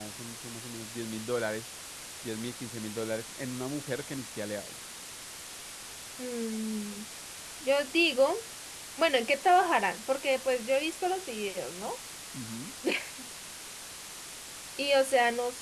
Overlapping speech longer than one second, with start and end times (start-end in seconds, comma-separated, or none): none